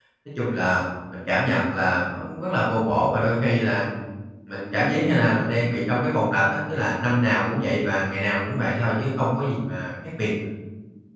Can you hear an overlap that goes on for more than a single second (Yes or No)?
No